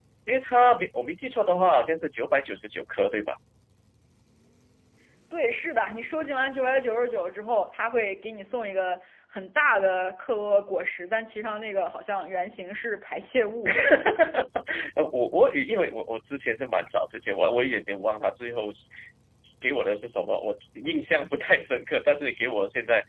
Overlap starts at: none

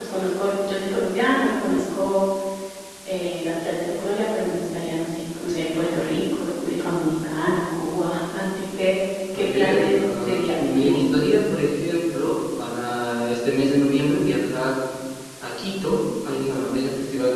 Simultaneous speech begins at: 9.3 s

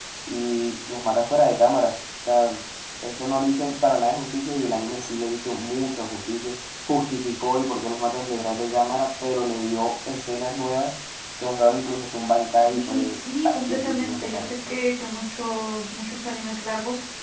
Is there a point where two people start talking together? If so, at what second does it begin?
12.6 s

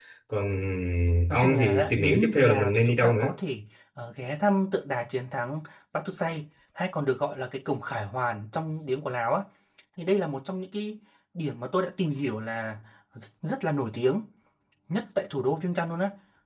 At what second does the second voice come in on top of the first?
1.3 s

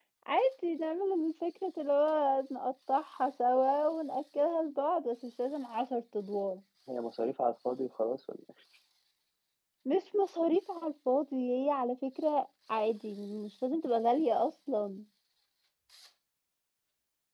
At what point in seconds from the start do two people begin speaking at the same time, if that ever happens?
none

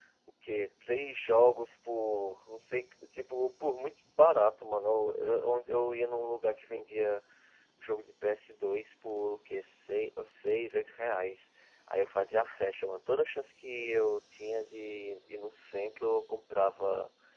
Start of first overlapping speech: none

